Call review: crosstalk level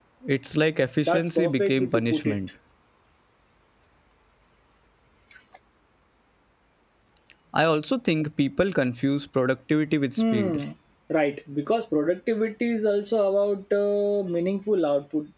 present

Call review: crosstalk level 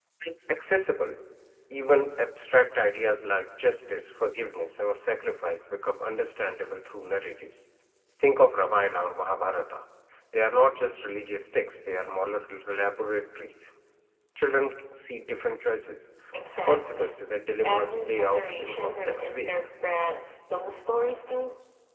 present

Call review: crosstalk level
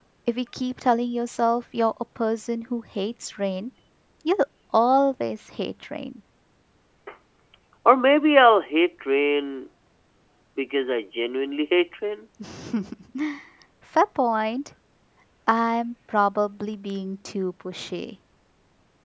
none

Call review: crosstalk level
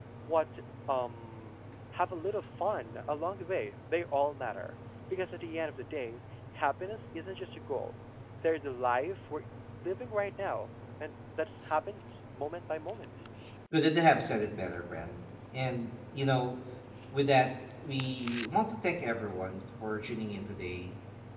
none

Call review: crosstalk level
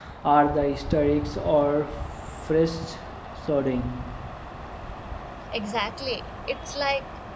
none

